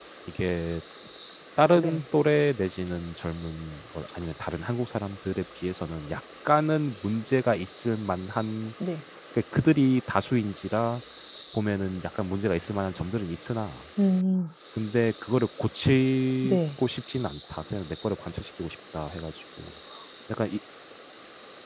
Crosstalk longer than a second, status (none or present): none